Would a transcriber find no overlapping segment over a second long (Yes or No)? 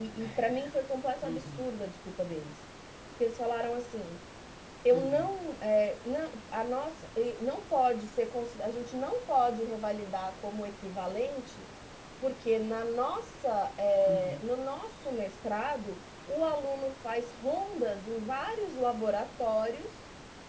Yes